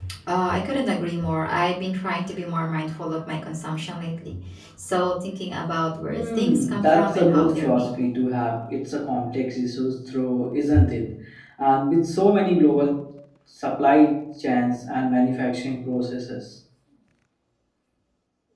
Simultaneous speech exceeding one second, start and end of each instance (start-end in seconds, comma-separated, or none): 6.1-7.9